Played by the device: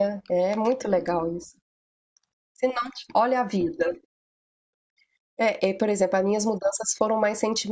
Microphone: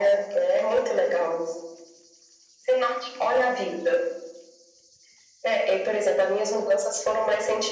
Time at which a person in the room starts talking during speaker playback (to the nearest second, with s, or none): none